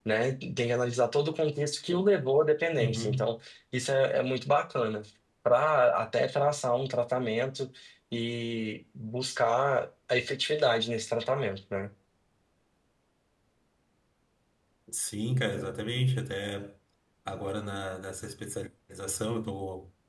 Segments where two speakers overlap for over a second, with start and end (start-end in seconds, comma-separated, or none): none